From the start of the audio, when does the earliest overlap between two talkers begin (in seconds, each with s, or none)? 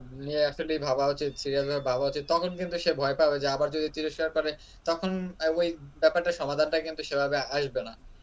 none